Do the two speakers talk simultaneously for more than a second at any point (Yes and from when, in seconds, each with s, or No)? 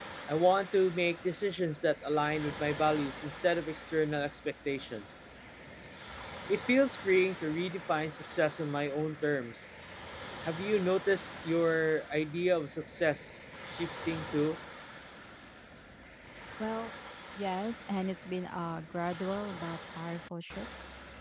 No